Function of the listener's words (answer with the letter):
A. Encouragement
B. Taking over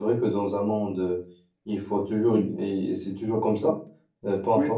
A